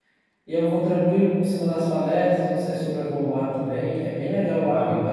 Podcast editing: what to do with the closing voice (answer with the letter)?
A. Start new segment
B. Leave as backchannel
B